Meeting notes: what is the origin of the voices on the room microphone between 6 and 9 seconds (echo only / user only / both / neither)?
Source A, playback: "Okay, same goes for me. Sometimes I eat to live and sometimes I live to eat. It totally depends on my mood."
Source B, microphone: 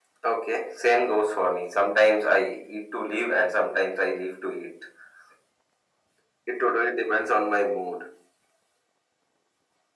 echo only